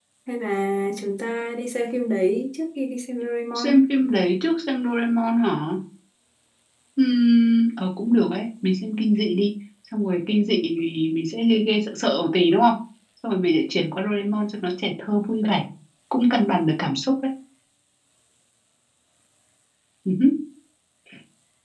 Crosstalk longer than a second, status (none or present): none